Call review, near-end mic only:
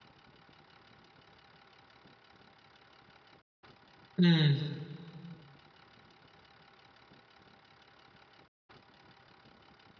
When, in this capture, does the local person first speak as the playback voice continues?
4.2 s

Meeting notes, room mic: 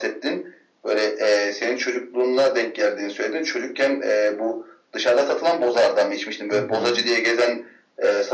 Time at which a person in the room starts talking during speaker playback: 6.5 s

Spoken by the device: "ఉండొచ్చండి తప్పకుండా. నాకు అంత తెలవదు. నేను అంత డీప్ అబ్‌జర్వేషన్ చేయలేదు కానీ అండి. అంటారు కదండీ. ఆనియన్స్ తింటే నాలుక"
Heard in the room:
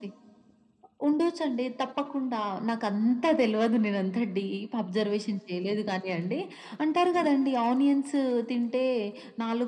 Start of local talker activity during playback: none

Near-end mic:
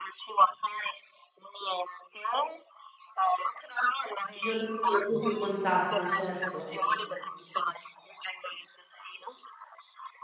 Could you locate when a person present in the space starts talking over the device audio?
4.4 s

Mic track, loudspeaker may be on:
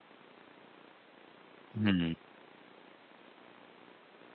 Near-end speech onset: 1.8 s

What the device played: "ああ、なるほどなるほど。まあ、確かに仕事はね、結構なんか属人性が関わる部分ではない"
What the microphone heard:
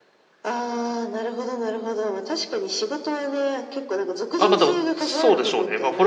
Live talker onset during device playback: 4.4 s

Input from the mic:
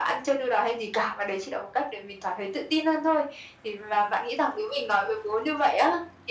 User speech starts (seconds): none

